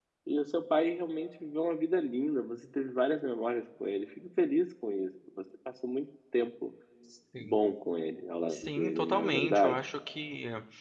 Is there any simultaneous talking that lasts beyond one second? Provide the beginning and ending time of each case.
8.5-9.8

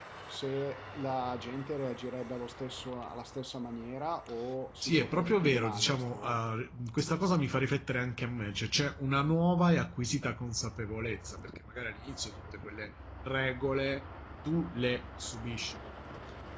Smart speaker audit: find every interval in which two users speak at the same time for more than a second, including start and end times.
4.8-6.4

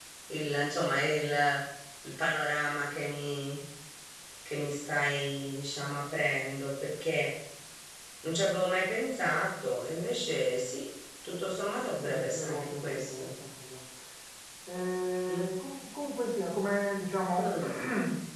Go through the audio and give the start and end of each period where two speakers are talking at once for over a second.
12.0-13.3

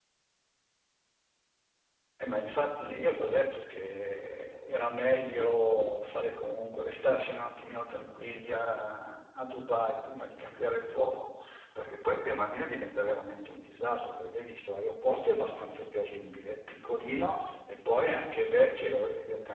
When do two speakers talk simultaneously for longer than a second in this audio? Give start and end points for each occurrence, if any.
none

